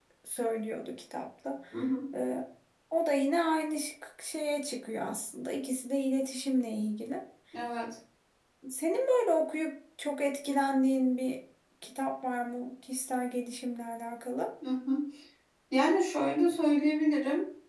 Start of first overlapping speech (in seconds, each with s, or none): none